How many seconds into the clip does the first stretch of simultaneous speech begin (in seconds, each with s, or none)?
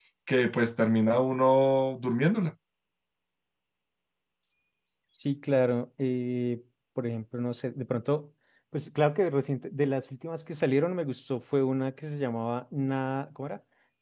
none